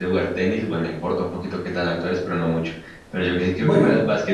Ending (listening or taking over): listening